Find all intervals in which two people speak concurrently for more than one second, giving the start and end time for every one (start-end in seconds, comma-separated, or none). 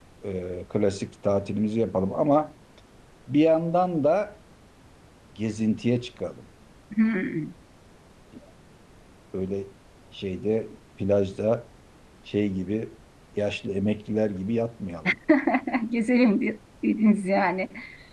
none